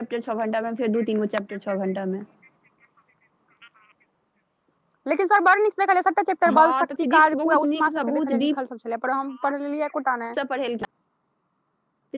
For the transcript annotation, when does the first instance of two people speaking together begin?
6.5 s

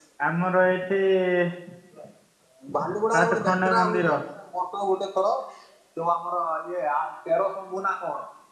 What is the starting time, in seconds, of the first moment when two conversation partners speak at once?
2.8 s

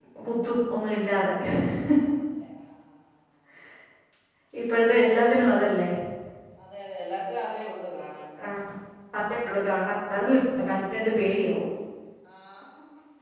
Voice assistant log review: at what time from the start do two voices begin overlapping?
none

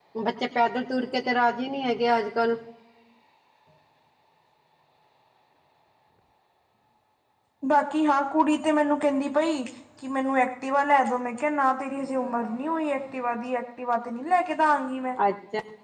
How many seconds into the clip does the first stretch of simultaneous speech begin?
none

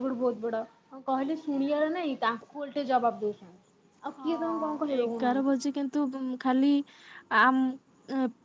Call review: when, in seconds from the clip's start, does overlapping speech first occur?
4.2 s

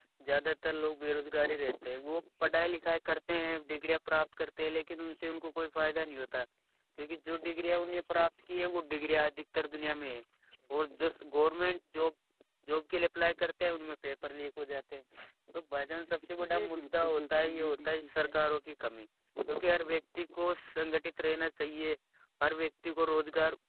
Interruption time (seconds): 16.4 s

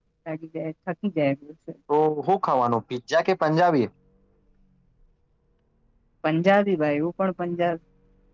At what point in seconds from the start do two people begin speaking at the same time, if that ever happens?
none

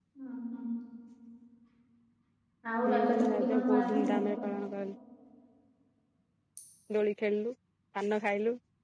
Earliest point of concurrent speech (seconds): 2.9 s

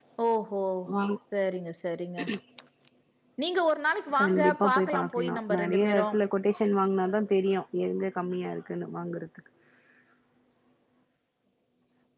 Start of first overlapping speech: 4.2 s

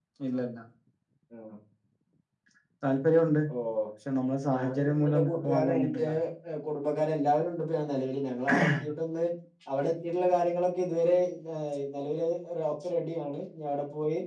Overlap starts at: 4.5 s

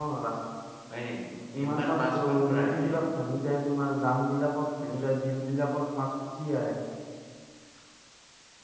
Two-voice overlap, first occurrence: 1.6 s

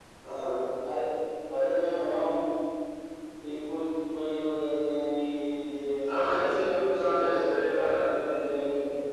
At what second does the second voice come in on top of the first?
6.1 s

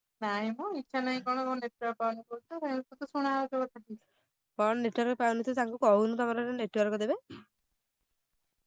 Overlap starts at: none

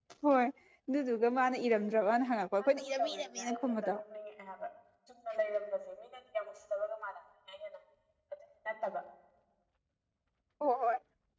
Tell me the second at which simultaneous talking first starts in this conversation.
2.6 s

